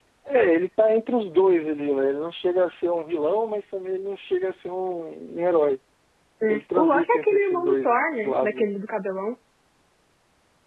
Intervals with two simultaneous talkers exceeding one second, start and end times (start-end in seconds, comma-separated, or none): 6.5-7.9